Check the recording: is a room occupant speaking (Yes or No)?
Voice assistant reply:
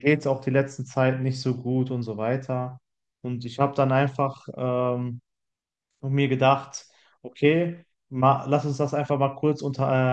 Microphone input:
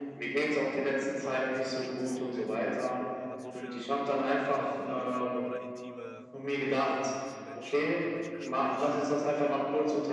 Yes